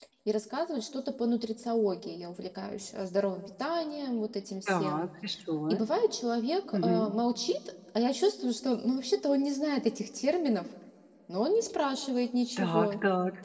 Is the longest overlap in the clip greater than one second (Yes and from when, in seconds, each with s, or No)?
No